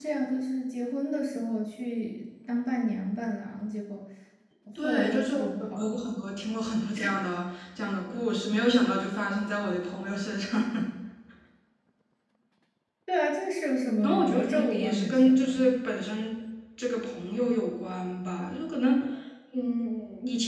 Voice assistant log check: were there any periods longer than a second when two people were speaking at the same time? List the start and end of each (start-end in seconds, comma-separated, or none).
4.8-6.0, 14.0-15.5